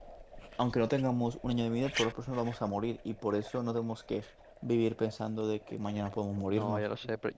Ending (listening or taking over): taking over